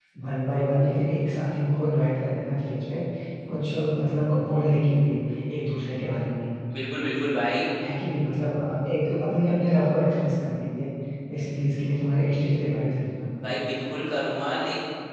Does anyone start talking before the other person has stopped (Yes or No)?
No